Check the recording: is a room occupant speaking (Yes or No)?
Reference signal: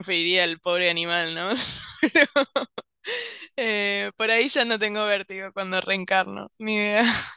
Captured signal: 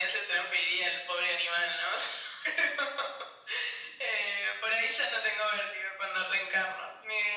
No